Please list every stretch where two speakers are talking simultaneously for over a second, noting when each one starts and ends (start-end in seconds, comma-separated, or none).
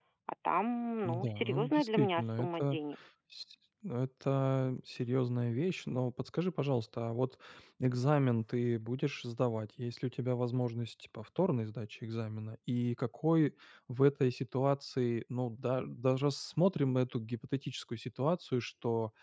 1.1-2.8